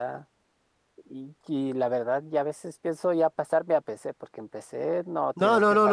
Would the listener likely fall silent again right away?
No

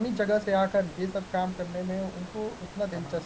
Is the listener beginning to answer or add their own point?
Yes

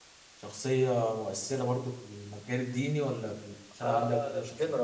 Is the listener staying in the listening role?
No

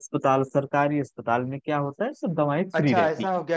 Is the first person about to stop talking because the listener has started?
Yes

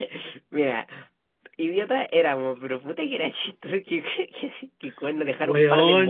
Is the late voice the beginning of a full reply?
No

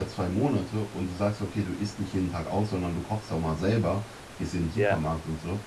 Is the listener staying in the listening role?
Yes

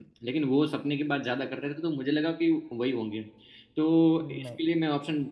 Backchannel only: Yes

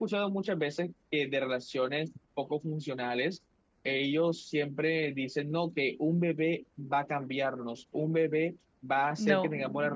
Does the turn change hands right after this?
No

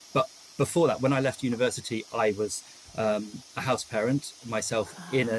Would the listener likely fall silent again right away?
Yes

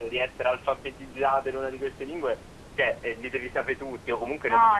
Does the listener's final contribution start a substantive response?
Yes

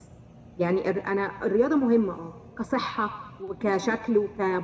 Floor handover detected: No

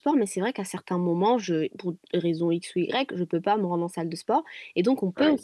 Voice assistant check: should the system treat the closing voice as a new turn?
No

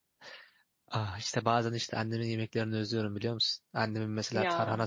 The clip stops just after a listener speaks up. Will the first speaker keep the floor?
Yes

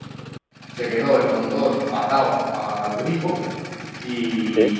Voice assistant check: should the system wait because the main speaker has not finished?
Yes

